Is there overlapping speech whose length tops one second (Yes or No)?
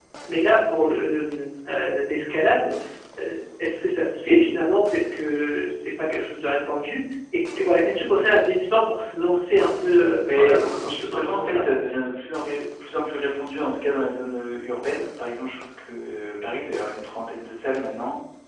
Yes